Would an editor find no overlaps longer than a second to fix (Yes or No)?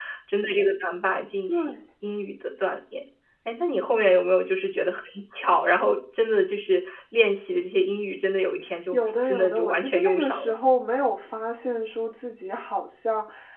No